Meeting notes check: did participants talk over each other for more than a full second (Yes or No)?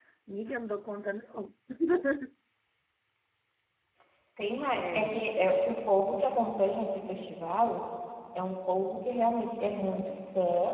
No